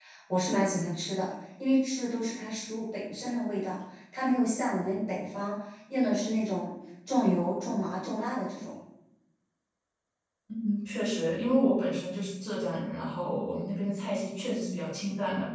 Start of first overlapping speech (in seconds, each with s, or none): none